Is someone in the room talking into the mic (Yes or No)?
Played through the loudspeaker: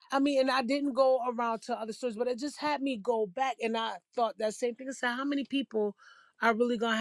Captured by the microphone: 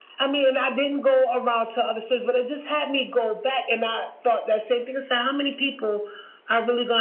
No